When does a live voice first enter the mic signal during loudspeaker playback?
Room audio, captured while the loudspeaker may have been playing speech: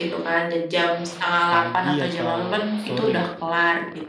1.5 s

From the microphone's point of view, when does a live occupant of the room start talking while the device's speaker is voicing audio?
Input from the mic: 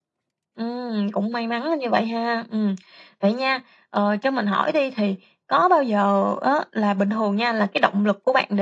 none

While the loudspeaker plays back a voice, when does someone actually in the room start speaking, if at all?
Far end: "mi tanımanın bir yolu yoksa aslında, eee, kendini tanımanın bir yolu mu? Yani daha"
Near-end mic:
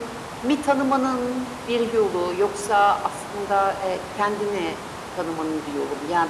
none

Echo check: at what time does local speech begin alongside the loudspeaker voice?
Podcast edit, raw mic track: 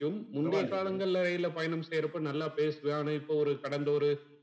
0.4 s

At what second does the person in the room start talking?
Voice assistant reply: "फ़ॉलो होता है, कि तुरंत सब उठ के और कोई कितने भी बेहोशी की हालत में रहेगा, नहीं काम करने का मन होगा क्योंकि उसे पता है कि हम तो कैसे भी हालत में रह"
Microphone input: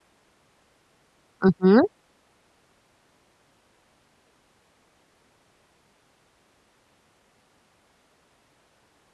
1.4 s

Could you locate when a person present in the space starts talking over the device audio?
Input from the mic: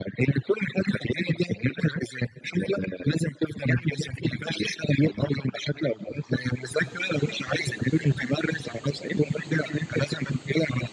none

